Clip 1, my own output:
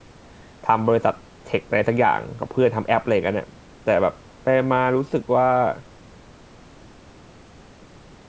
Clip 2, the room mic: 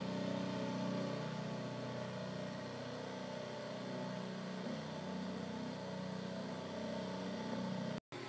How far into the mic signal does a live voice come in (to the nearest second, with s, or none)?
none